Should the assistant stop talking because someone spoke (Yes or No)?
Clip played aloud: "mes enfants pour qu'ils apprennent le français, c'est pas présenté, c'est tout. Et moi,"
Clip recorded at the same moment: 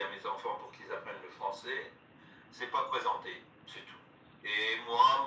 No